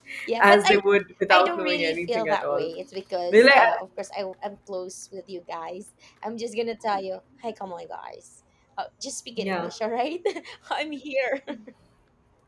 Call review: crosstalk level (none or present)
present